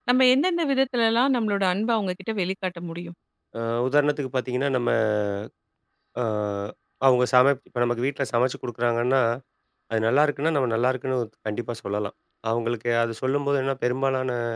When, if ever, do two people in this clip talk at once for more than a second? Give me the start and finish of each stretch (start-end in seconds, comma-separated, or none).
none